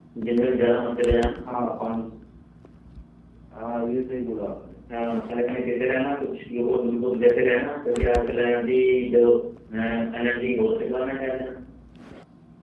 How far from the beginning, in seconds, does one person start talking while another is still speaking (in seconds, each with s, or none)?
none